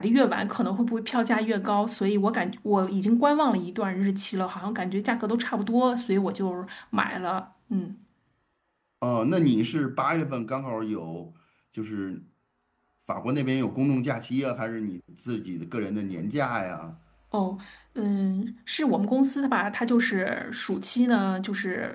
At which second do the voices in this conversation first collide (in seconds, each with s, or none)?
none